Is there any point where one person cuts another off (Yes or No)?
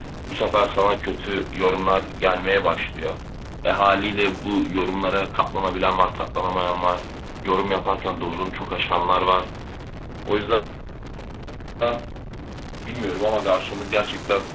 No